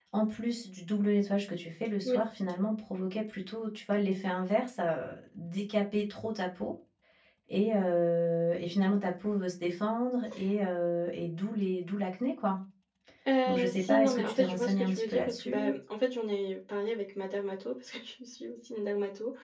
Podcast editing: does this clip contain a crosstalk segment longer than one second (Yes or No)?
Yes